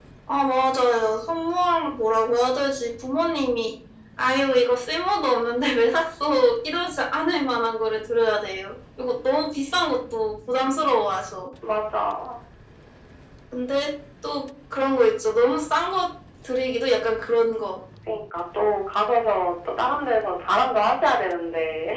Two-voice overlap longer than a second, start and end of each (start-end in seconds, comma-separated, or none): none